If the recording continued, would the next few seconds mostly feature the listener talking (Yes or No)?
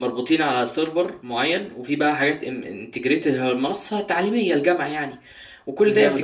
No